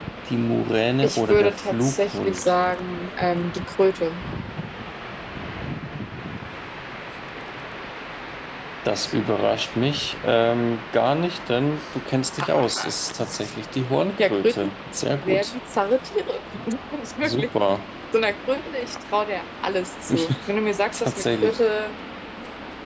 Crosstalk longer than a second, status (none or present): present